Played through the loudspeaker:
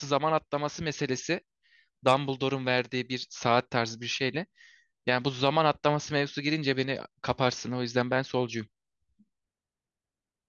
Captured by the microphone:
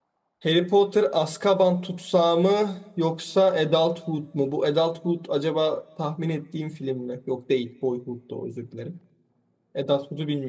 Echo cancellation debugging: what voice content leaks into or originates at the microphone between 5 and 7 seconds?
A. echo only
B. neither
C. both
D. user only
D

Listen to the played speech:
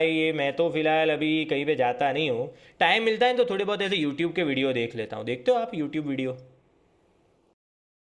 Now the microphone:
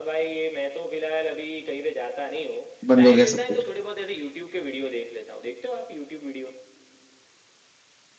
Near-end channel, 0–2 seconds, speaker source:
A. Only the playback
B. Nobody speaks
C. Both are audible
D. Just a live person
A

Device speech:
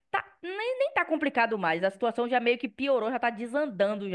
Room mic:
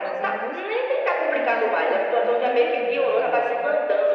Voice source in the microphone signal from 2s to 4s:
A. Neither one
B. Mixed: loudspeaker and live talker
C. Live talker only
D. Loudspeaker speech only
B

